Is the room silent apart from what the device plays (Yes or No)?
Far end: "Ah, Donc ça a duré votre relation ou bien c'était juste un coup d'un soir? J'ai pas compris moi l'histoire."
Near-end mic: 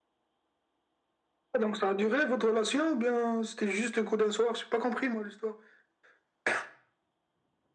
Yes